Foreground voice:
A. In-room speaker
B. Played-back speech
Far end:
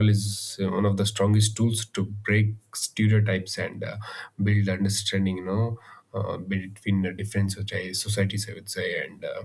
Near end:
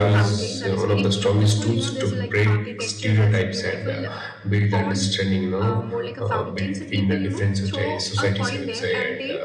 B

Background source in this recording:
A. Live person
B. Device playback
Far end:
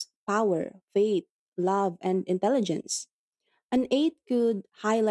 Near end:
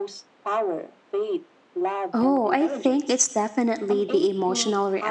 B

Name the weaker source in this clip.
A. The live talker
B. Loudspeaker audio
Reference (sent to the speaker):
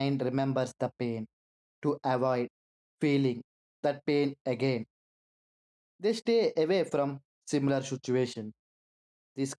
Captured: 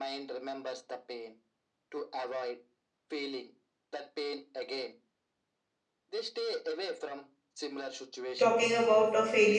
B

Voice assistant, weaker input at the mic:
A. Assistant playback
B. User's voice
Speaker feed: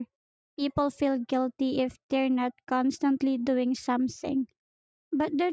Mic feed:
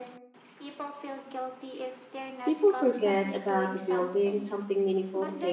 A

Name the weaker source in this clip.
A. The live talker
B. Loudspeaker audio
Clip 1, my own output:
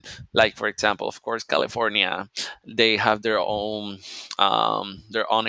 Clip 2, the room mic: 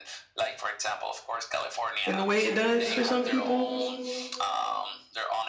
B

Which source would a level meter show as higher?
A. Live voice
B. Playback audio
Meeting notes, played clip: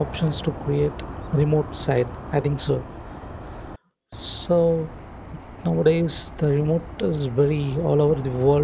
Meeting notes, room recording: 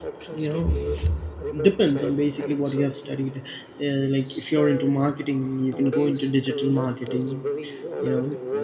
A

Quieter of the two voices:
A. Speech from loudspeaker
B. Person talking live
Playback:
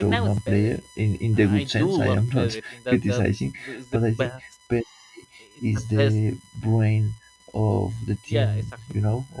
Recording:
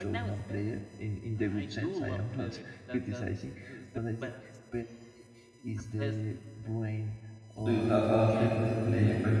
A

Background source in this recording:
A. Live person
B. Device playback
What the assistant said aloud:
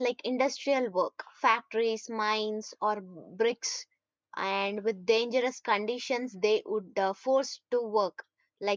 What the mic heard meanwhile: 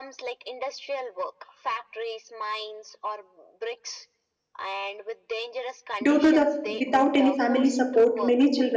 B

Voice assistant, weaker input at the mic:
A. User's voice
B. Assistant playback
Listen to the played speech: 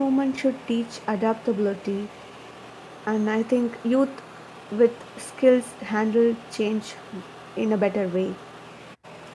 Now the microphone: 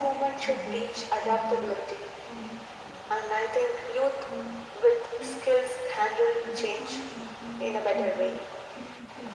A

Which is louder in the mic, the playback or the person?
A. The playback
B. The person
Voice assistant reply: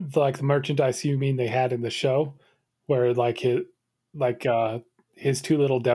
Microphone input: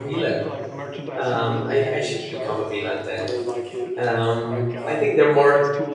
B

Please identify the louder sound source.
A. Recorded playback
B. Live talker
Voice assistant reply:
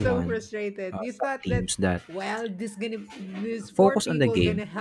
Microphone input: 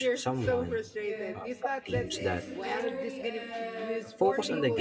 A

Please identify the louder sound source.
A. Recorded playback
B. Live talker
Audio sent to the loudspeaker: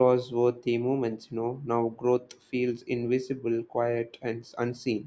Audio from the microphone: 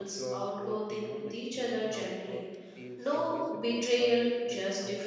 B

